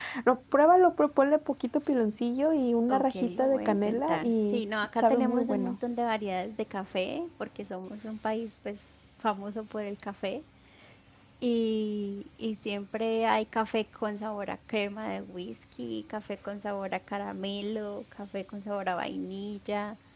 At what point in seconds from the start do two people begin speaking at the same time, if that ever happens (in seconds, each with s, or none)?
2.9 s